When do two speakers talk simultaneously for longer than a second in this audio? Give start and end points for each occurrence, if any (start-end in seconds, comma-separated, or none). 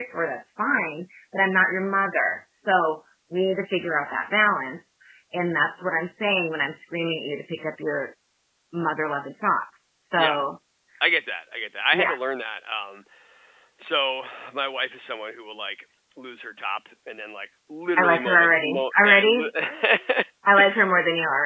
18.0-19.5